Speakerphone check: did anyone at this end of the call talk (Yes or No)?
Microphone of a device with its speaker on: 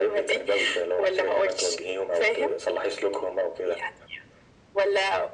No